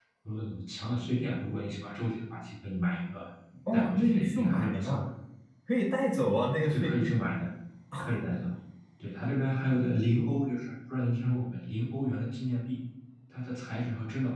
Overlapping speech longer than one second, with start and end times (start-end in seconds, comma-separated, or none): 3.7-5.0